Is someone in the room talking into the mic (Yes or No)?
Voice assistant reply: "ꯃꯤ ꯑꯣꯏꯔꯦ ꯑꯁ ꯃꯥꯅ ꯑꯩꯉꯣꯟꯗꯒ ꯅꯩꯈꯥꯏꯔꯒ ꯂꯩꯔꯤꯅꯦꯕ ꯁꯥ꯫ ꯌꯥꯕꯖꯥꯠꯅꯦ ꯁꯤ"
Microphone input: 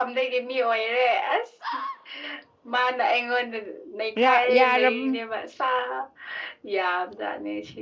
Yes